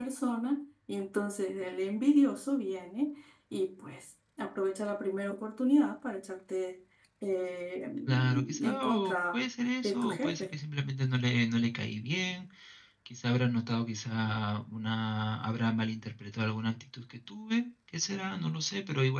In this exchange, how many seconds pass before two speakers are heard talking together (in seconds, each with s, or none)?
8.1 s